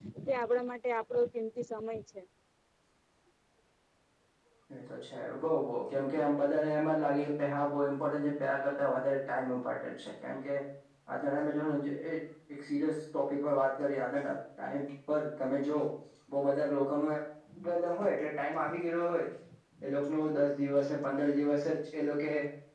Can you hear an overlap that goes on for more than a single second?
No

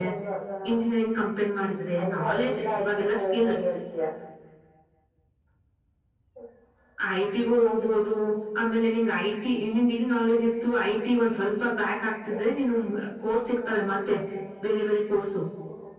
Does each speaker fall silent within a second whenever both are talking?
No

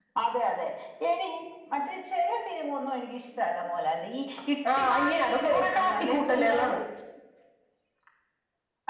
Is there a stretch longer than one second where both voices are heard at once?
Yes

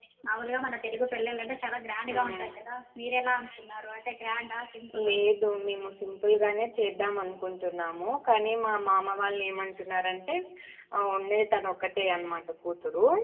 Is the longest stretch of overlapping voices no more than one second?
Yes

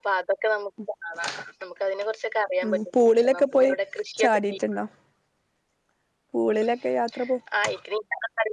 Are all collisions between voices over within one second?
Yes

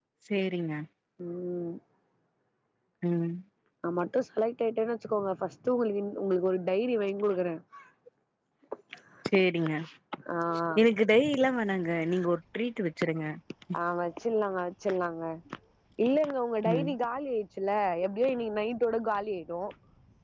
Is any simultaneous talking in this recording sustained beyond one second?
No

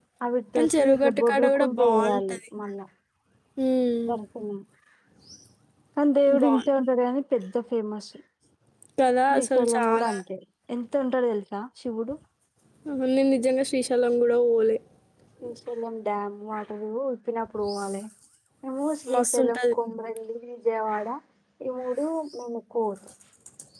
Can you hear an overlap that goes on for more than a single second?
Yes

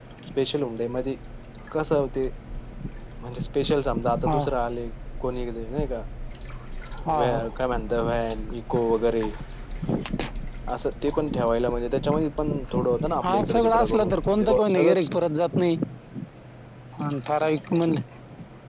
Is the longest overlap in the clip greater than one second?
Yes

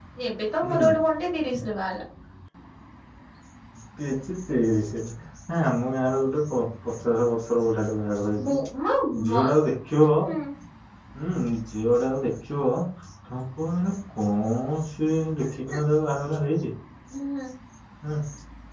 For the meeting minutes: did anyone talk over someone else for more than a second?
No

